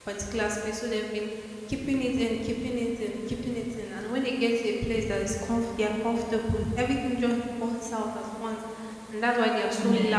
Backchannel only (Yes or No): Yes